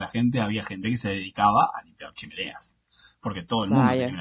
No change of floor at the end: Yes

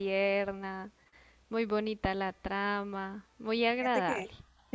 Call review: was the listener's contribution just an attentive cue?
No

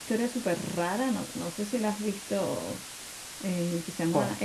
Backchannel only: Yes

